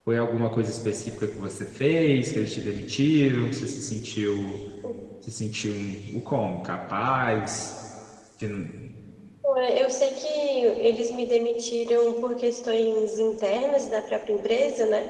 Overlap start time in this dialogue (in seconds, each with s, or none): none